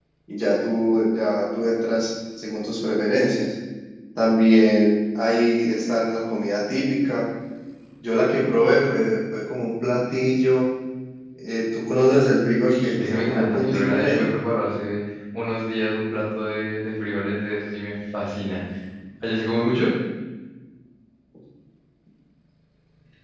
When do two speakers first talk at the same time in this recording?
13 s

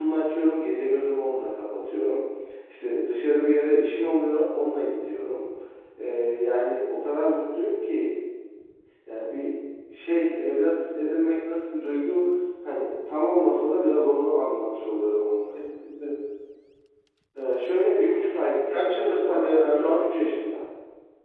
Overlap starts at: 19 s

